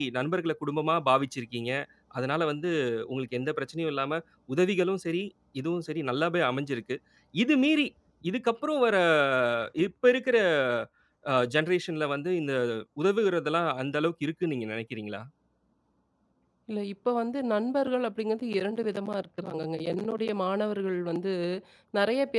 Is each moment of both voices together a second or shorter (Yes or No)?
Yes